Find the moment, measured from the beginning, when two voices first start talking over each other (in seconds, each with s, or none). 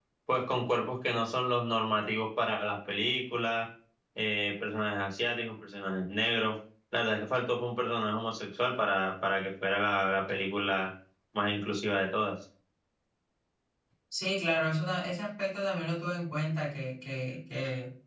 none